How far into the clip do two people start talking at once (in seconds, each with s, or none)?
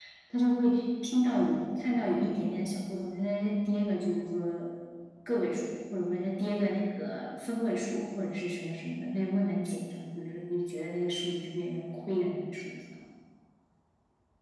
none